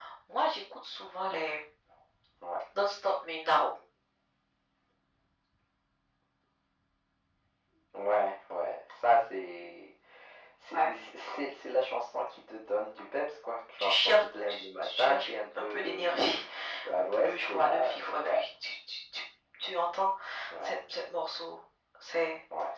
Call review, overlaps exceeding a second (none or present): present